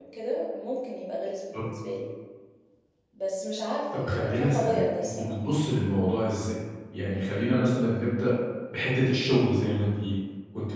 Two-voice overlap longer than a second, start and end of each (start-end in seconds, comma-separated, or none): 4.1-5.3